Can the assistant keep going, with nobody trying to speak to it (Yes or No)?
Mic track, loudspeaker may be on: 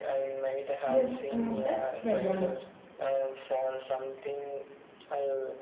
No